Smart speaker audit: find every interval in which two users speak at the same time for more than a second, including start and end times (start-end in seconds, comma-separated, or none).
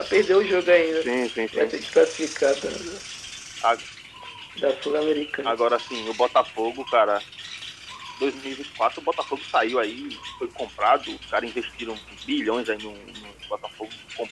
none